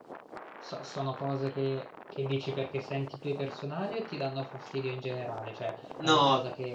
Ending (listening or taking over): listening